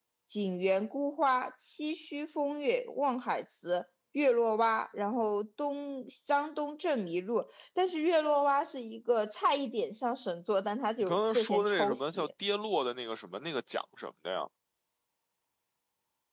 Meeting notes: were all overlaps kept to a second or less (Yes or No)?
No